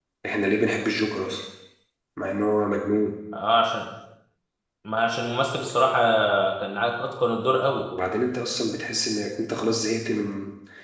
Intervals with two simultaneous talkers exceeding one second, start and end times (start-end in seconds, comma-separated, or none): none